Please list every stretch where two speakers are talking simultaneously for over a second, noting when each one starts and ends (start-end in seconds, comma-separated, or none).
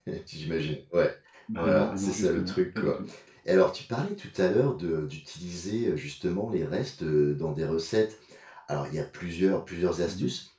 1.6-3.0